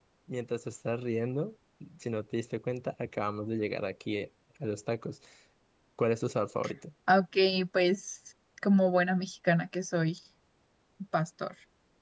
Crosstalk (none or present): none